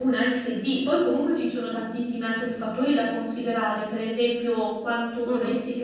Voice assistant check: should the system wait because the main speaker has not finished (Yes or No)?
Yes